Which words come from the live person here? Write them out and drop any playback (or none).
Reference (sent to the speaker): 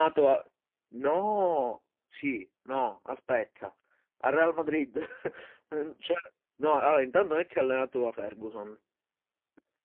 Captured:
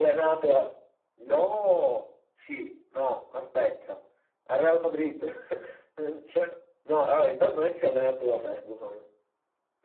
none